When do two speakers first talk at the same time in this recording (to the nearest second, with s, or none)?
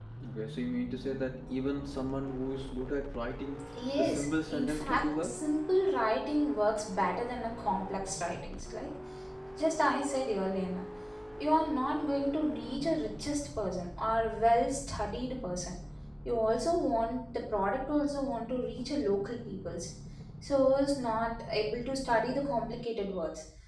4 s